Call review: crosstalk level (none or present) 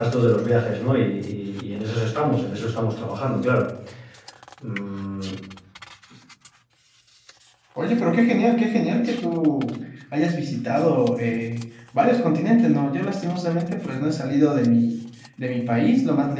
none